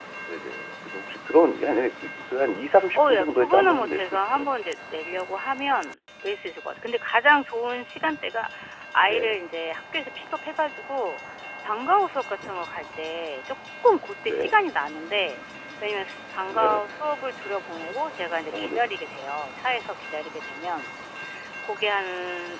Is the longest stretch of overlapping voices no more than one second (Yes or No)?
No